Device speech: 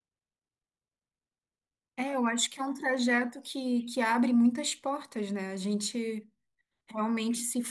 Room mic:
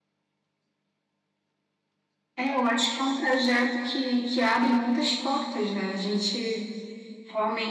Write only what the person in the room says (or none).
none